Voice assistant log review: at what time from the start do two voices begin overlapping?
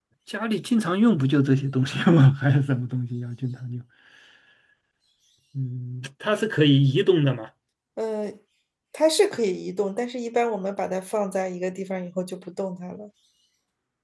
none

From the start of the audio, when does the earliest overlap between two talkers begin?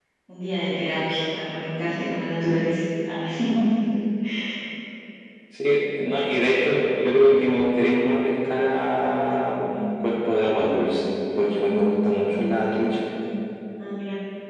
none

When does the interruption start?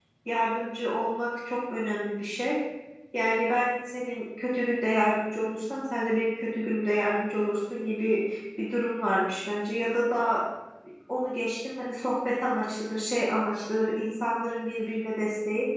none

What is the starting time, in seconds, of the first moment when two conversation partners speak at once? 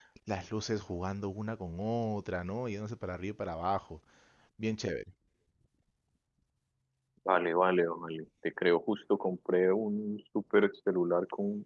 none

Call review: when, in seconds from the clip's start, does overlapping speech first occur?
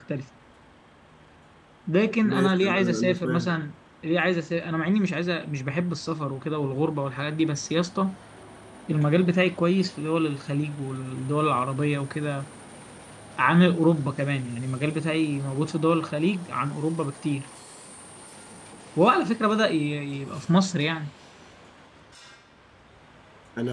2.2 s

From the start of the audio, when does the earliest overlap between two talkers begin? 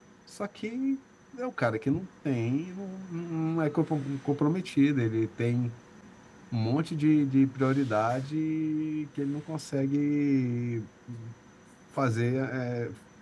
none

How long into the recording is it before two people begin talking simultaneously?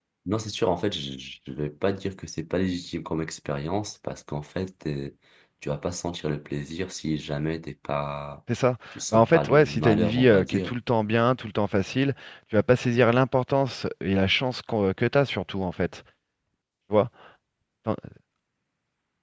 9.1 s

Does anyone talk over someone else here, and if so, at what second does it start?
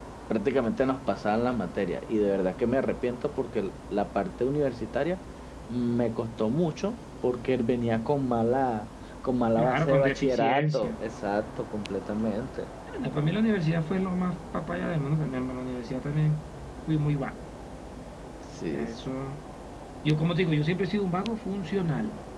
9.6 s

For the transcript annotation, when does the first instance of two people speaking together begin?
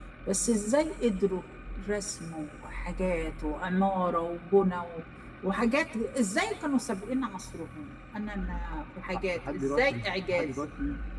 9.1 s

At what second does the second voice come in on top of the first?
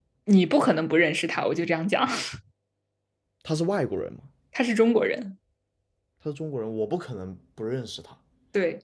none

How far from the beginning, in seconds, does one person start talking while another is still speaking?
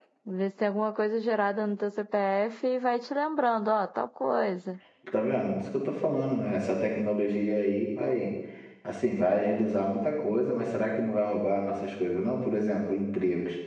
none

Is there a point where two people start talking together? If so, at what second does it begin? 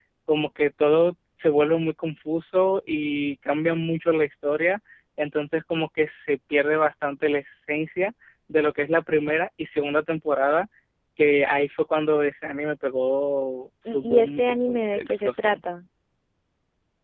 13.8 s

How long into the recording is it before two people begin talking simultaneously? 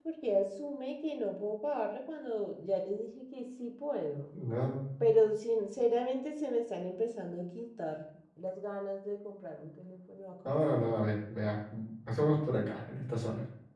none

